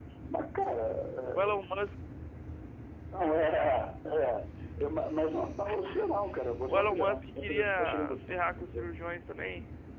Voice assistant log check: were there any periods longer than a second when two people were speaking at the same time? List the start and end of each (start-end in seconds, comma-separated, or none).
6.7-8.9